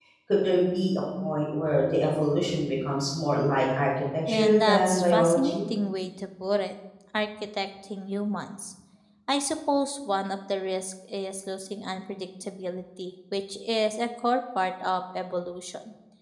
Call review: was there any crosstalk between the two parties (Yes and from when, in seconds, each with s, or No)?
Yes, from 4.3 s